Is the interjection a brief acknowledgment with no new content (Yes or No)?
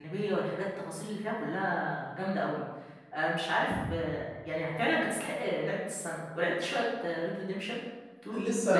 No